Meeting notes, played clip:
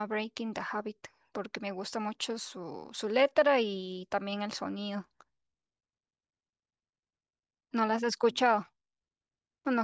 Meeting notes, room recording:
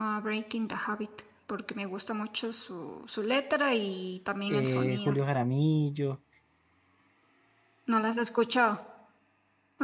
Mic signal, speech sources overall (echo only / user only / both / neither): both